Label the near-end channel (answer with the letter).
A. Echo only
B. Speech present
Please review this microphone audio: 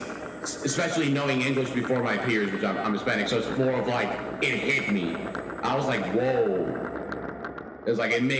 A